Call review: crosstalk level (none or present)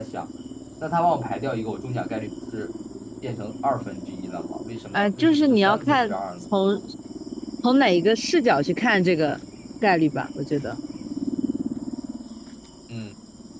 present